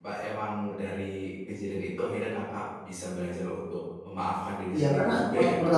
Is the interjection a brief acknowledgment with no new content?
No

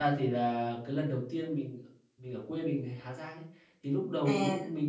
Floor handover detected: No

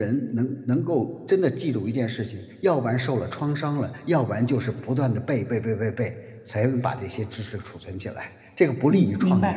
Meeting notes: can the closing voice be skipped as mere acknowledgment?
No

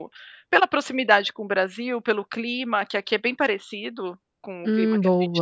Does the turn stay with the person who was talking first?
Yes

